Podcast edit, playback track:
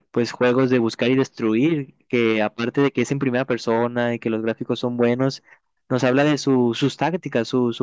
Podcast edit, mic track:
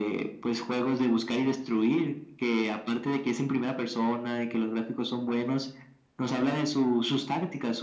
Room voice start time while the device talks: none

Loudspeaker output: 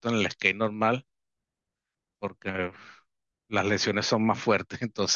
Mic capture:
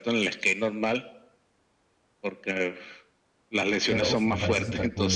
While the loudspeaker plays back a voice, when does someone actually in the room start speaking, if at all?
3.9 s

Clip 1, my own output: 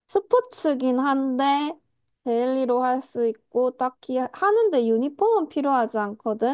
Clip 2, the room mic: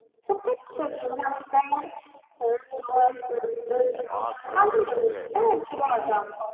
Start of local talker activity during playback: 3.5 s

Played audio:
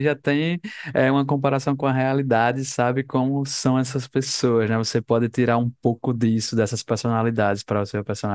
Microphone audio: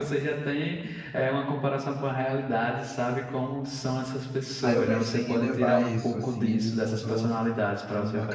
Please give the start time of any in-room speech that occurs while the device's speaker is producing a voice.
4.6 s

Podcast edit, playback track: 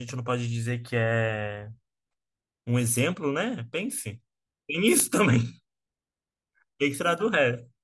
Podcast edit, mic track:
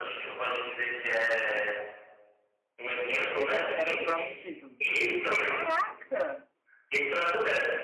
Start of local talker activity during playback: 3.3 s

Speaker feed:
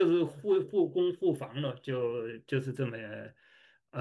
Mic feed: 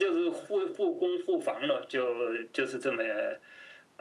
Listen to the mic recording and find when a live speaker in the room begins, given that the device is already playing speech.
none

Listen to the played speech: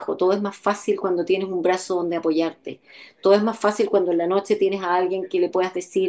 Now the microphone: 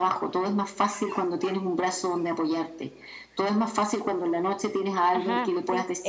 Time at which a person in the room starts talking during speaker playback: 5.1 s

